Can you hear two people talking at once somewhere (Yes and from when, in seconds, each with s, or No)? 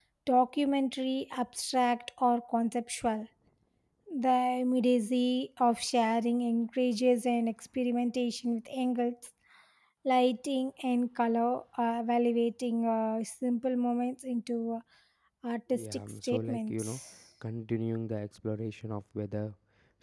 Yes, from 15.7 s